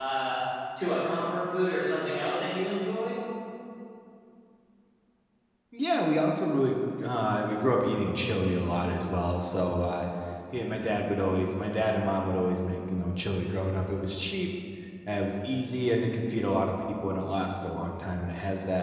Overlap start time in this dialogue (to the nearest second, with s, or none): none